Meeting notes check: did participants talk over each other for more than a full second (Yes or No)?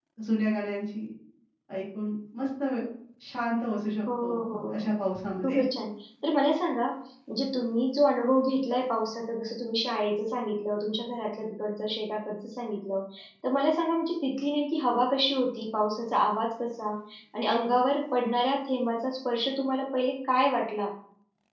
No